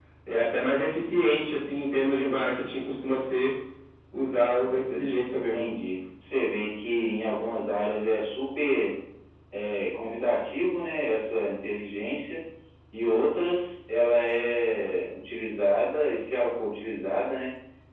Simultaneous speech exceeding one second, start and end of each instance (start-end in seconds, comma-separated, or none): none